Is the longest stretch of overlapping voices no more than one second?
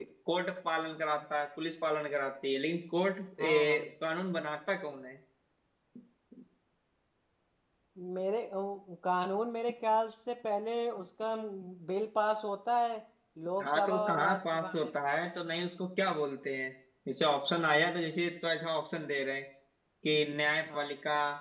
No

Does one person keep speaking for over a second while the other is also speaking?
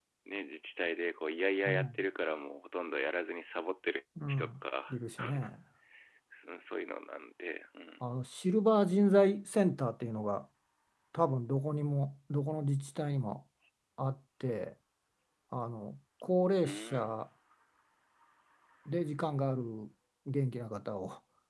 No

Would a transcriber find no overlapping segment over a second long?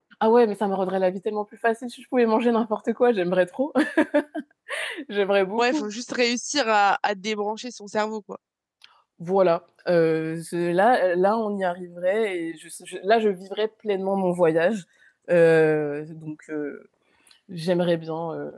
Yes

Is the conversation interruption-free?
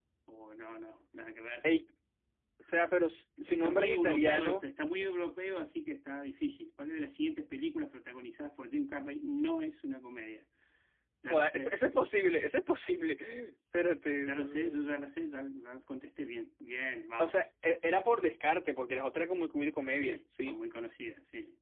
No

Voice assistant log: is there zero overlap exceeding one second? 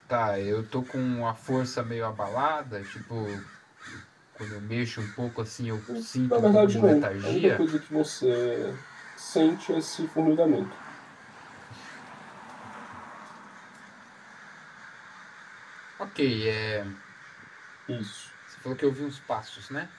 No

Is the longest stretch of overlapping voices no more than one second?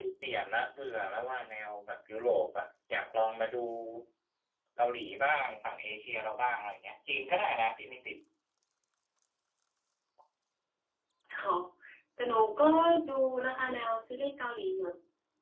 Yes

